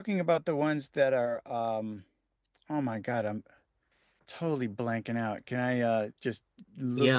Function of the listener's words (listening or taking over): taking over